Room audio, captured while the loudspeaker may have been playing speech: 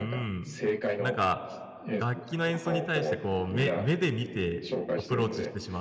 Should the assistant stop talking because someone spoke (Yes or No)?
Yes